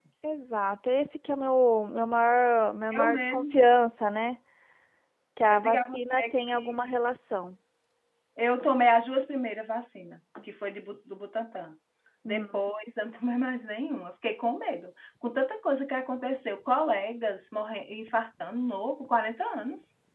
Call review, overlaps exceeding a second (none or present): present